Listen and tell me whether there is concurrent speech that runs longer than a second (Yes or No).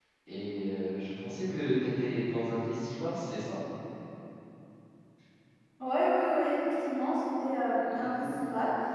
No